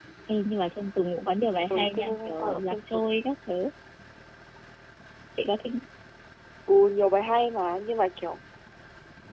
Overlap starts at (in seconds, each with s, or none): 1.7 s